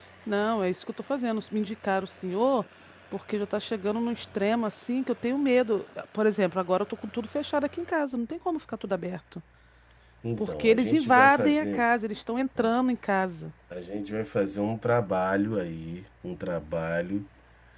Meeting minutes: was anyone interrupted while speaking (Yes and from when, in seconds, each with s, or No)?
Yes, from 10.4 s